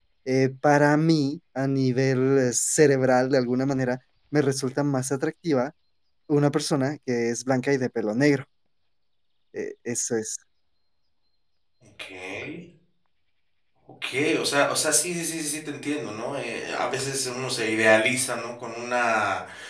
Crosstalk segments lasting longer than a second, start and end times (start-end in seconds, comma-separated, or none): none